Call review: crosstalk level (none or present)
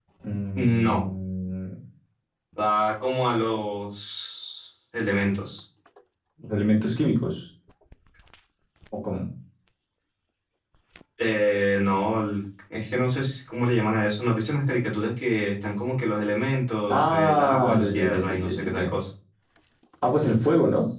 present